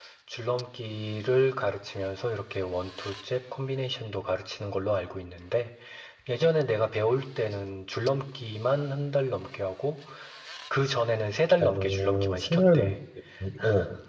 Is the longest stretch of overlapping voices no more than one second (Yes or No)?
No